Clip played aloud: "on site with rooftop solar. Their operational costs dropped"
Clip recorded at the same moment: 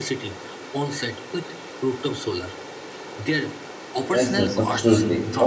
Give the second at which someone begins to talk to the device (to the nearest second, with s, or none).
4 s